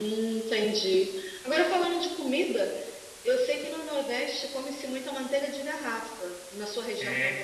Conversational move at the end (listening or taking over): taking over